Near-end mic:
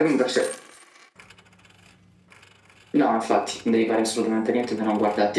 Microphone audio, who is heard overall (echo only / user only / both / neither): echo only